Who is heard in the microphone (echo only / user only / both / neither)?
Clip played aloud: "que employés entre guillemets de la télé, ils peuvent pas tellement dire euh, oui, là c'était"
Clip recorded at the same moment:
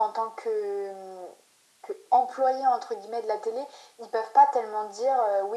echo only